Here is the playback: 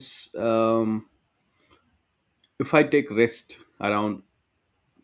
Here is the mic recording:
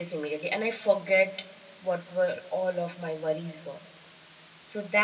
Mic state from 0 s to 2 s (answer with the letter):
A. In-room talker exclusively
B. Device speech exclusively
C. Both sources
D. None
A